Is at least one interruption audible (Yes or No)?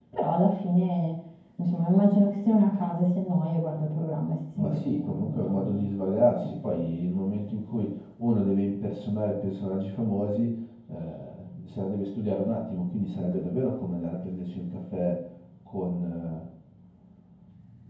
Yes